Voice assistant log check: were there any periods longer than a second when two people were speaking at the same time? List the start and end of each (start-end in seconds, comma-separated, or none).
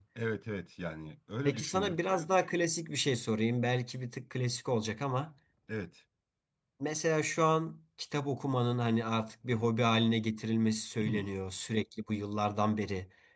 none